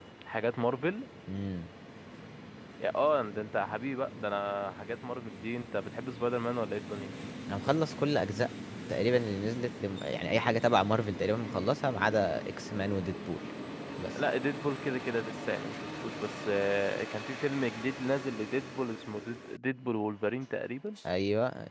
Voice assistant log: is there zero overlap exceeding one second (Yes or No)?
Yes